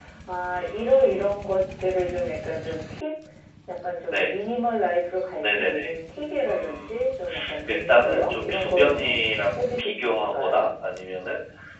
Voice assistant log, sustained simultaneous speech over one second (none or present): present